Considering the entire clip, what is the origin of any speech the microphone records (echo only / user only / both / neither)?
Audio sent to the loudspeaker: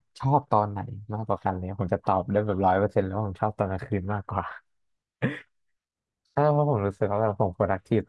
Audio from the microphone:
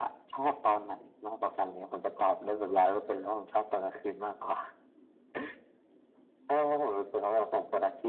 echo only